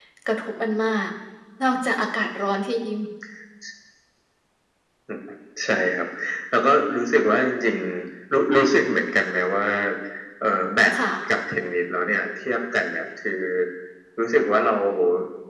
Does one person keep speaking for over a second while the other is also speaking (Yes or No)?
No